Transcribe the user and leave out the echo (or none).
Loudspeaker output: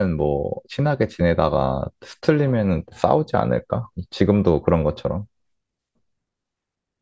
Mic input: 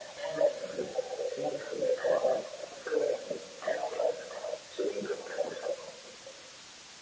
none